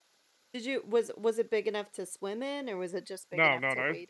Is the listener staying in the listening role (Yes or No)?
No